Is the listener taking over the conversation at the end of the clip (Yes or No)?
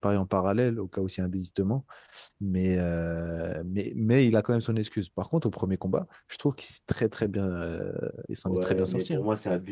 Yes